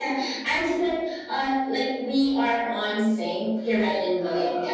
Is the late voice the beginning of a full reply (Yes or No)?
Yes